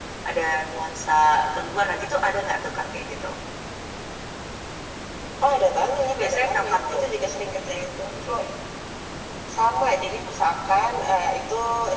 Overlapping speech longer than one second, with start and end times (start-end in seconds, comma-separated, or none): 5.6-7.0